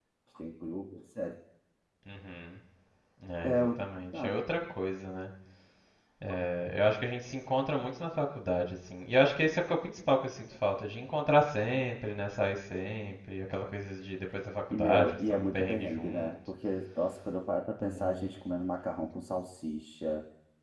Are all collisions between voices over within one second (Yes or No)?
No